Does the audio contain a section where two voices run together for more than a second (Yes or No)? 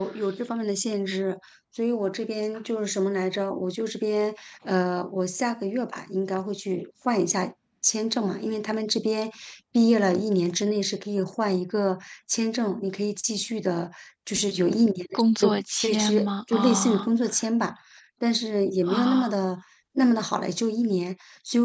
Yes